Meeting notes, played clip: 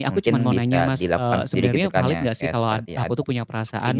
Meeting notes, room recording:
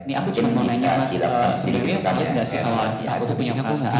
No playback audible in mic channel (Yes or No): No